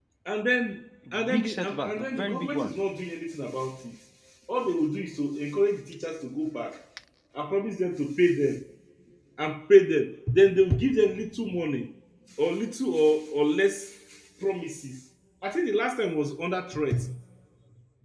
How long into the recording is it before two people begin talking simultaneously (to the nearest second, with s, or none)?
1 s